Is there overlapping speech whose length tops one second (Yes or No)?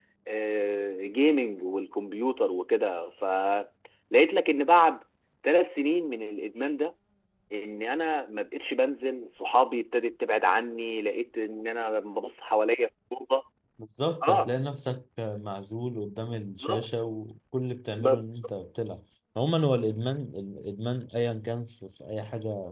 No